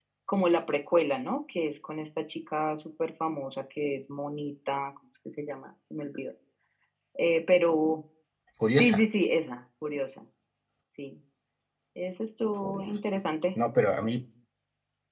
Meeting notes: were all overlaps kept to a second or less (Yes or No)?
Yes